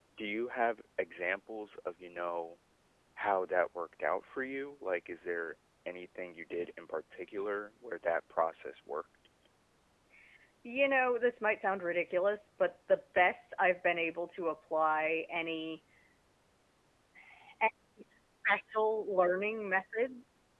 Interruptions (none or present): none